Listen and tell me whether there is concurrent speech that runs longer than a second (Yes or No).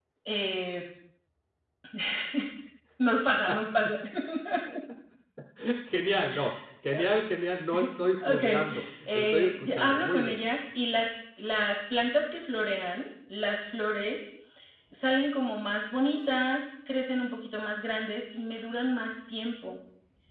Yes